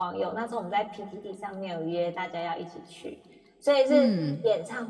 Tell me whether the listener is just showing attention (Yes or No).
Yes